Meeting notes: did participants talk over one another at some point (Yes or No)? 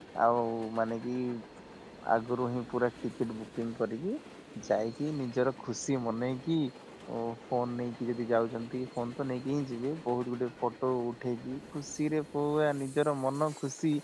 No